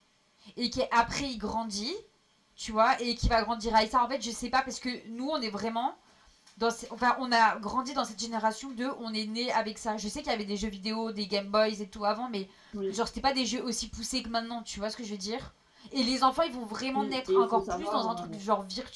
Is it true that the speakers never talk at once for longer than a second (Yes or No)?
No